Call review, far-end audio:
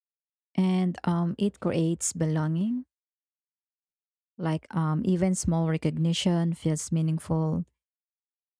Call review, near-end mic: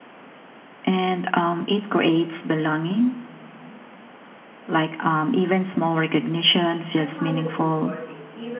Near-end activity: present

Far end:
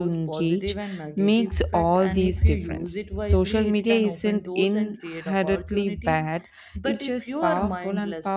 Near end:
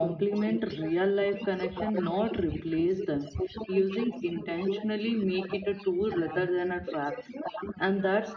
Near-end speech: present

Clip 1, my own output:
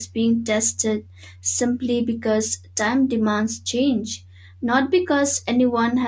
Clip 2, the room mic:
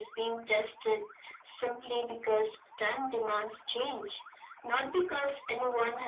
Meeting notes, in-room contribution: none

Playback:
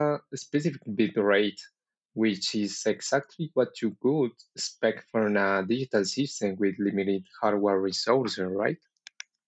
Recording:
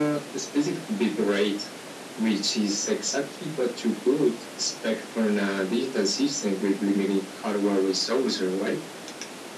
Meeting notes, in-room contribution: none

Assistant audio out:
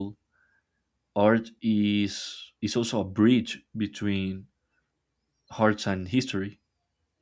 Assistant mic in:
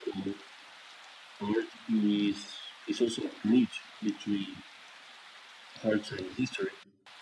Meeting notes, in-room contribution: none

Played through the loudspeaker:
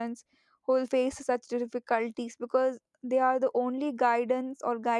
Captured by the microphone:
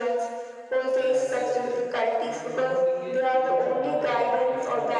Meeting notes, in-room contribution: present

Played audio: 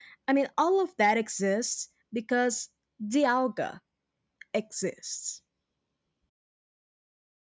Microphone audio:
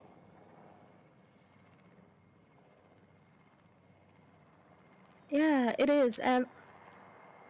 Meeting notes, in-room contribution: present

